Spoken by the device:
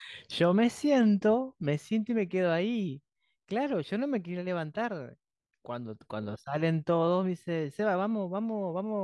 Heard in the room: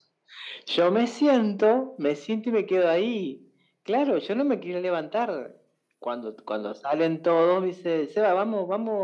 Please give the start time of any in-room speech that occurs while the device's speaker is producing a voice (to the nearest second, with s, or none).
none